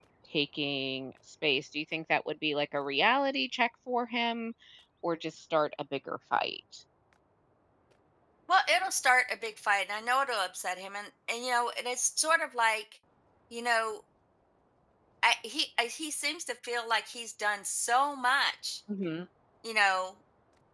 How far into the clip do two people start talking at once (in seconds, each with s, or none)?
none